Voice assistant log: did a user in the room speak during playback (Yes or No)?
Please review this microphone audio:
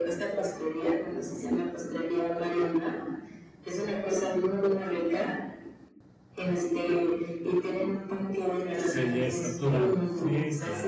Yes